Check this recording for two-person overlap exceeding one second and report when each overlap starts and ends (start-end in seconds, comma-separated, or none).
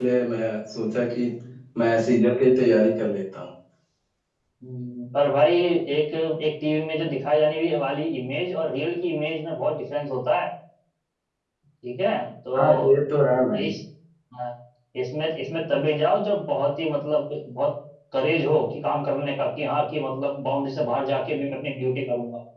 none